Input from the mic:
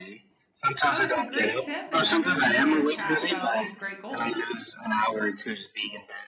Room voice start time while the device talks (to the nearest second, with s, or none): 1 s